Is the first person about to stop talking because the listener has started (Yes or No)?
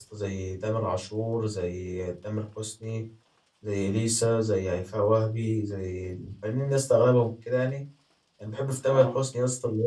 No